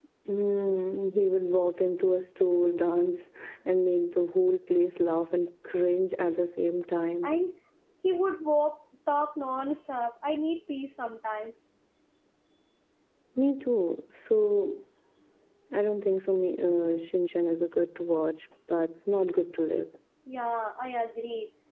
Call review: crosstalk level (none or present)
none